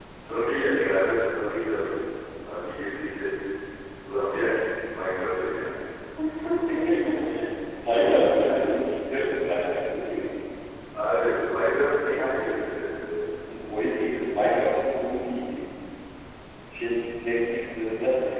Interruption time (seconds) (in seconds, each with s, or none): none